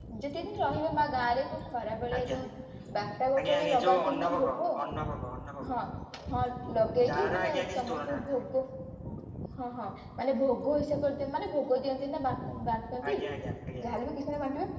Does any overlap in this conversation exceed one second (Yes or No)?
Yes